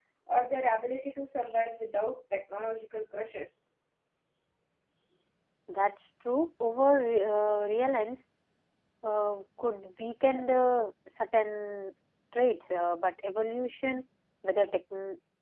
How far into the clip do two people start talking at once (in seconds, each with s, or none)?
none